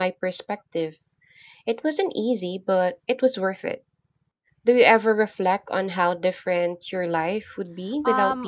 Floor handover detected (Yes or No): Yes